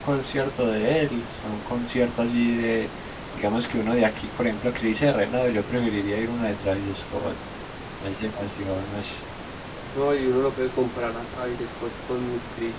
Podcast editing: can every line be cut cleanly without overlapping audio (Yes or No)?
Yes